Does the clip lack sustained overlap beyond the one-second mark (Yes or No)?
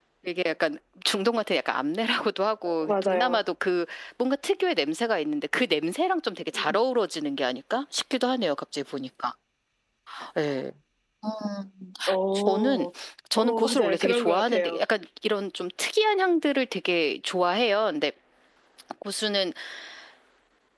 No